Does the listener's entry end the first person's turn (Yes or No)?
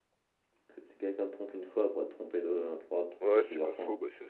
Yes